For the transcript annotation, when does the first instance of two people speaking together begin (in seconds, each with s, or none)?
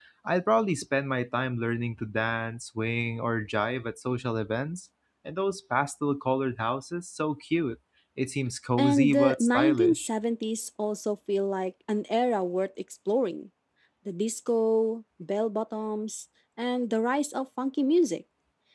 8.8 s